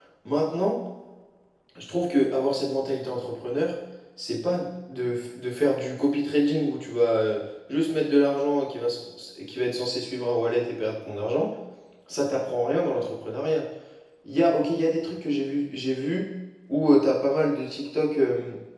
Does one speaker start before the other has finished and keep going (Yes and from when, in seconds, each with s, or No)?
No